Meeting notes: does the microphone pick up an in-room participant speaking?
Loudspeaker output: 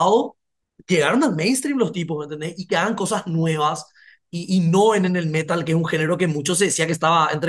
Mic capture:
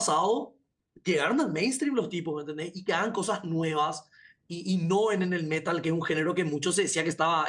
No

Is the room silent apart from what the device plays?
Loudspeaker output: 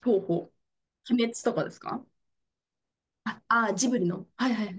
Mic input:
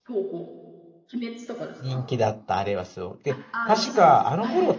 No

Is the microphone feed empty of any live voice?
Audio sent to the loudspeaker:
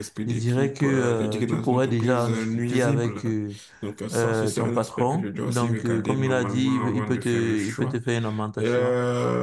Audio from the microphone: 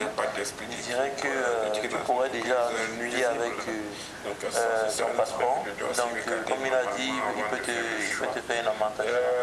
Yes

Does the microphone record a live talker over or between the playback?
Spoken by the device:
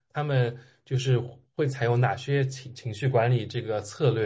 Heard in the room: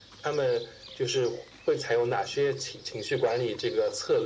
No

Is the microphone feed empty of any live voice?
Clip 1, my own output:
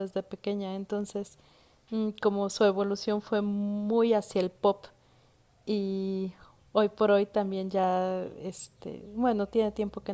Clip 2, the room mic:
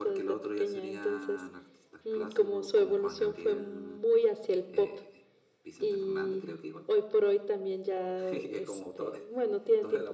No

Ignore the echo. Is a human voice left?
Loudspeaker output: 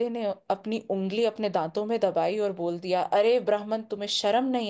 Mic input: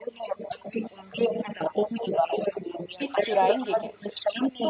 Yes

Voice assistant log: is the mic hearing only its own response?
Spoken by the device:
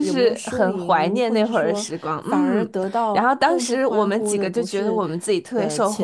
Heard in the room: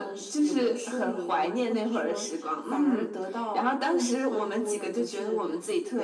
Yes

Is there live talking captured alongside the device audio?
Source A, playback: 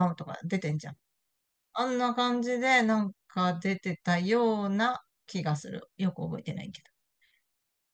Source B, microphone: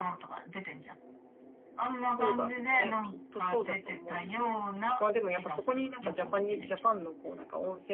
Yes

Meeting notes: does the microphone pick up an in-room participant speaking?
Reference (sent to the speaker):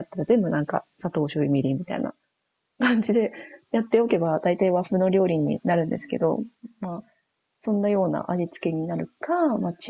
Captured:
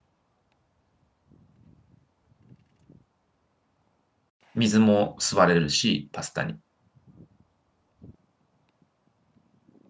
Yes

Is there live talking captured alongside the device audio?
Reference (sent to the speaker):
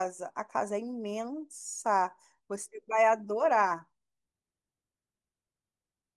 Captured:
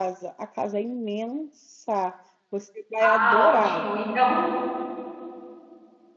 Yes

